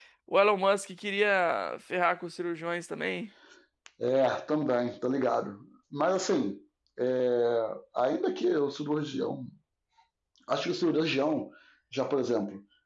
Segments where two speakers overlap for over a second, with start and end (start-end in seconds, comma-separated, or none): none